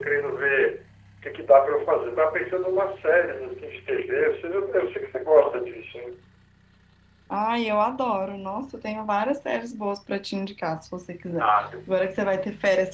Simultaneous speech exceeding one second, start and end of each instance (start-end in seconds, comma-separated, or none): none